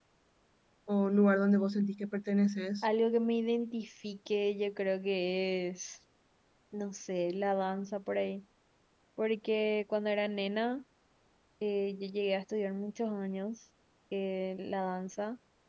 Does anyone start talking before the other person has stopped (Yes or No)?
No